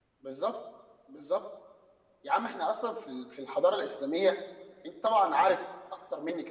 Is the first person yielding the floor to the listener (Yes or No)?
No